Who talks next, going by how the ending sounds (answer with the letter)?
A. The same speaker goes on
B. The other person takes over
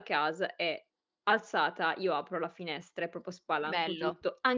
A